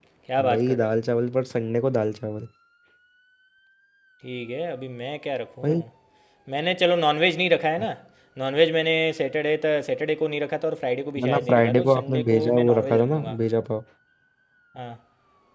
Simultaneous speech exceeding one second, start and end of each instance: 11.3-13.4

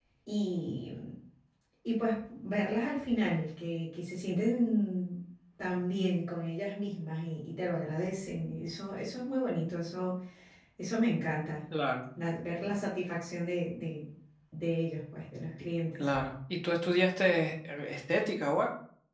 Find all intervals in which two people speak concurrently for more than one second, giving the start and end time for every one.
none

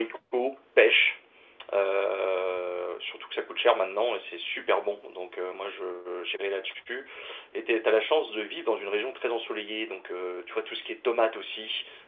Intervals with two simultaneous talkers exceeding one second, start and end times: none

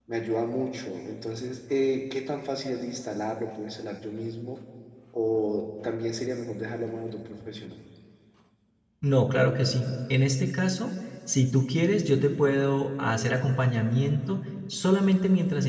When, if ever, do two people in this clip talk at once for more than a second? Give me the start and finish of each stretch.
none

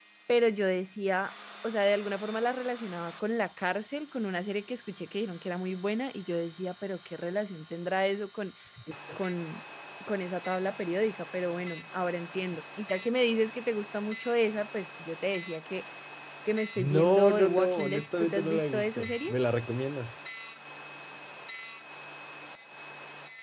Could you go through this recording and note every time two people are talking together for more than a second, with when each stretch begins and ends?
16.8-19.3

